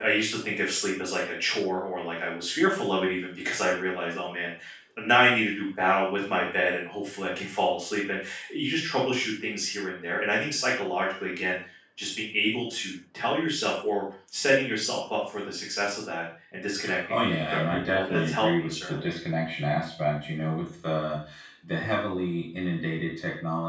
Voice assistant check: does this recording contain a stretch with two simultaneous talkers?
Yes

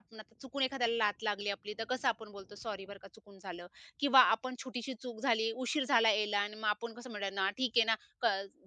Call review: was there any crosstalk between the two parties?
No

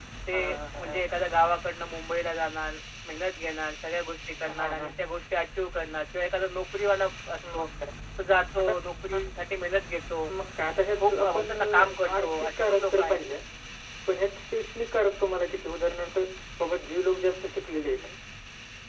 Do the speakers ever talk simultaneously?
Yes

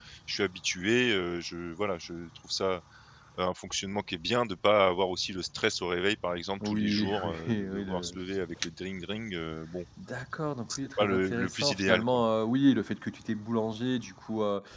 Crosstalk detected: Yes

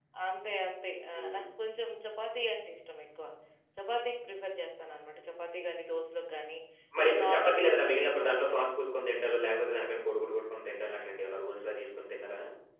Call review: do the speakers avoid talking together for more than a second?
No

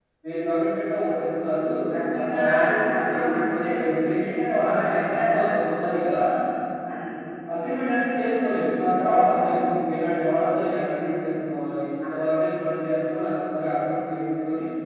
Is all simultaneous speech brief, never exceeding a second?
No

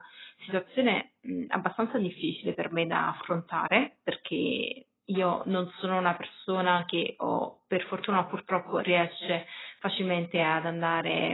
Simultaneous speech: No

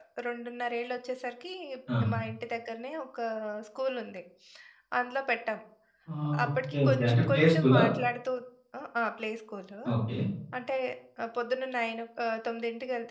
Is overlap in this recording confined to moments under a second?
No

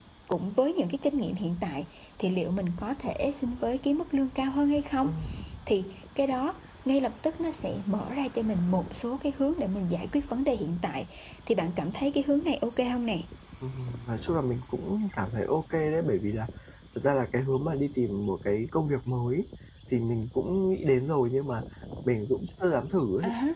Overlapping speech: No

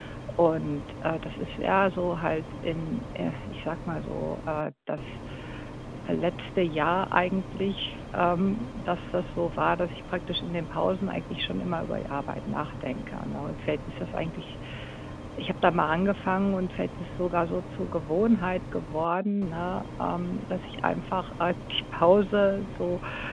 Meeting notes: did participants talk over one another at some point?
No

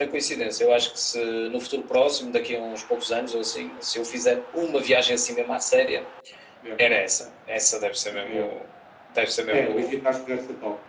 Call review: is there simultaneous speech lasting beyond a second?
No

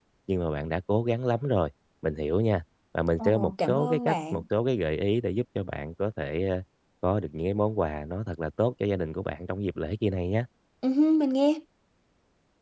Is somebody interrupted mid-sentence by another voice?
Yes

